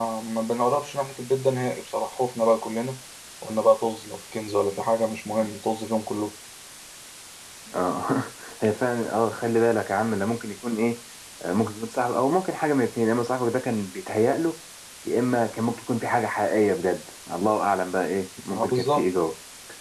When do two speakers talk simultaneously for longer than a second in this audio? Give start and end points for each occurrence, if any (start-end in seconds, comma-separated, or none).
none